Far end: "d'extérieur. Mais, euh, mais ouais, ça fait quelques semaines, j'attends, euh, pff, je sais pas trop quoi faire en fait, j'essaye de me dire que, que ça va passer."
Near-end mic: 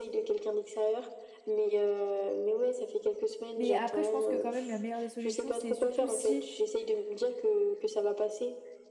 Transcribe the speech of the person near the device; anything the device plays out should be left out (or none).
Mais après, je pense que quand même la meilleure des solutions, c'est surtout si.